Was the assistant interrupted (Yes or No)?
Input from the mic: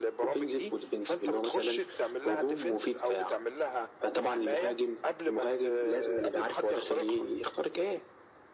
No